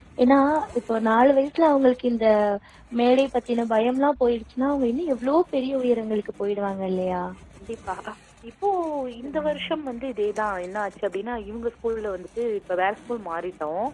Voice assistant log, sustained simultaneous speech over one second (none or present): none